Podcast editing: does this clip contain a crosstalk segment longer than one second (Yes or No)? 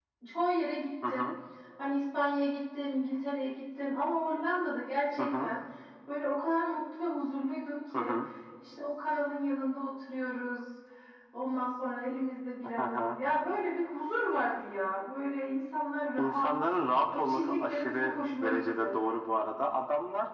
Yes